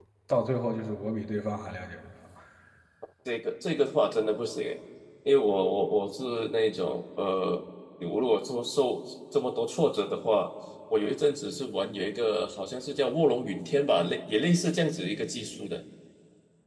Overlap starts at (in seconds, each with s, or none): none